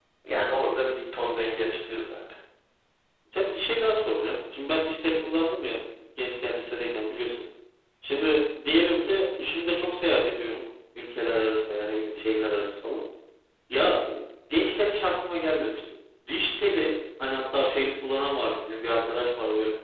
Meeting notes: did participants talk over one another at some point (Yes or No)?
No